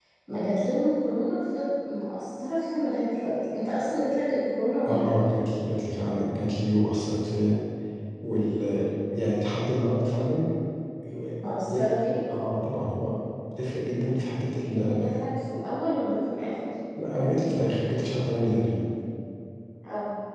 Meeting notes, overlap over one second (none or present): none